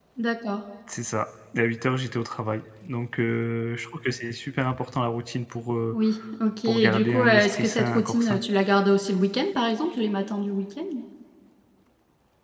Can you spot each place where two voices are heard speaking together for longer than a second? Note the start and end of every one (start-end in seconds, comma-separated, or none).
6.7-8.4